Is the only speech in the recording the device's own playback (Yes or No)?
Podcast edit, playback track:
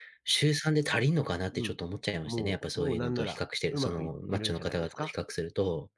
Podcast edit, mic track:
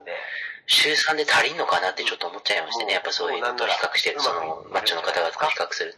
Yes